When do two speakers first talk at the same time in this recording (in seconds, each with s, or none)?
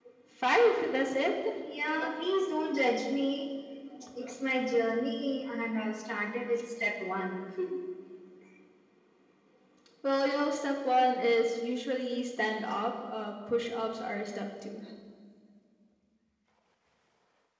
none